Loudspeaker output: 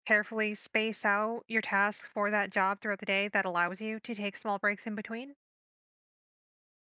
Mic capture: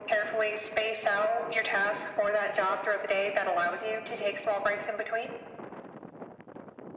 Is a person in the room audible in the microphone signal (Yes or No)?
No